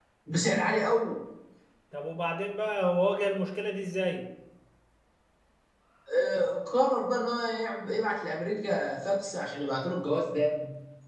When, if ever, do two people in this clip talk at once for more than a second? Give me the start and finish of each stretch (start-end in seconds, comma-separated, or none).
none